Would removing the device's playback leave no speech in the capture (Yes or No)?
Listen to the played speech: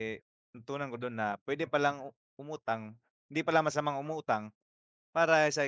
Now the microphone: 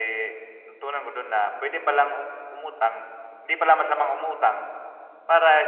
Yes